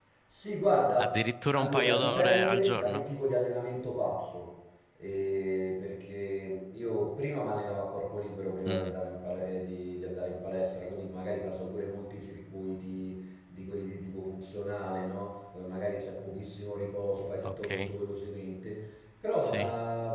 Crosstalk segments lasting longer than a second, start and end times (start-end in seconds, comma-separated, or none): 1.6-3.0